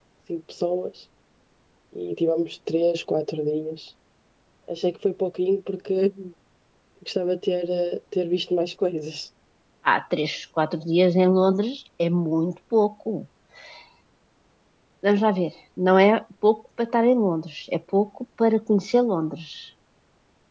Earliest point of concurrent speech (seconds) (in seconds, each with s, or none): none